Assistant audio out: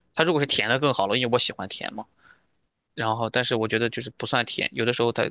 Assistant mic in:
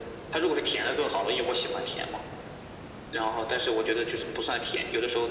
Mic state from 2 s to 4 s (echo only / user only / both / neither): echo only